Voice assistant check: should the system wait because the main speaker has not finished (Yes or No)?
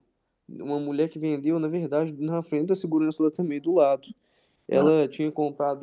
Yes